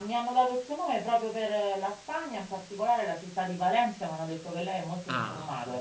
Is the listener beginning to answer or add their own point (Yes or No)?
Yes